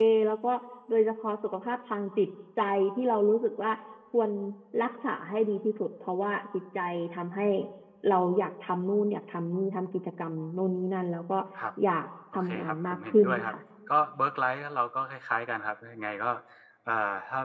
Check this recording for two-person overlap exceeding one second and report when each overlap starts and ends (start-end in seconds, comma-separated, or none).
12.3-13.5